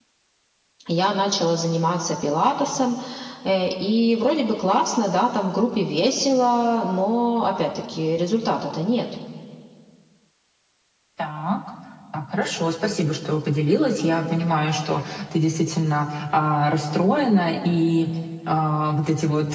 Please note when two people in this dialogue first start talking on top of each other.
none

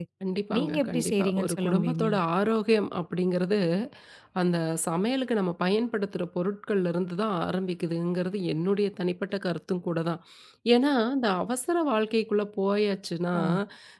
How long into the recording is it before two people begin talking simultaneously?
0.6 s

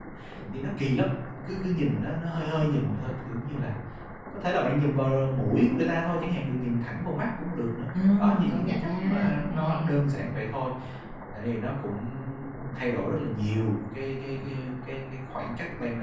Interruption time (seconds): 8.2 s

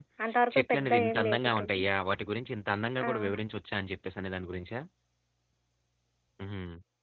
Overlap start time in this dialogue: 0.5 s

